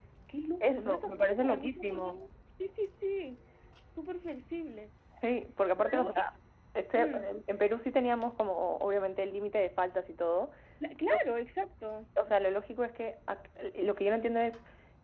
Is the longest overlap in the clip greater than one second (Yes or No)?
Yes